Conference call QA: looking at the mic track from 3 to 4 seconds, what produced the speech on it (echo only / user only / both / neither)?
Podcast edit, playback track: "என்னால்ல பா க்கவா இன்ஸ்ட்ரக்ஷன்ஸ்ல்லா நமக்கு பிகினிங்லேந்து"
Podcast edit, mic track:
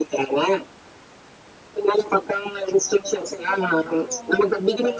both